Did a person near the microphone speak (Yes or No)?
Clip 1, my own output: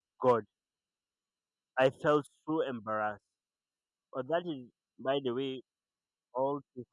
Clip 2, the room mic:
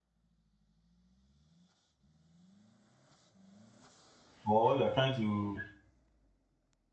Yes